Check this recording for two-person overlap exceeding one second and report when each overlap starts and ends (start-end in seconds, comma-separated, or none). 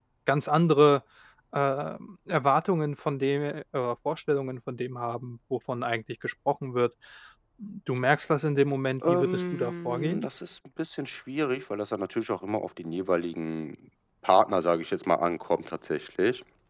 9.1-10.3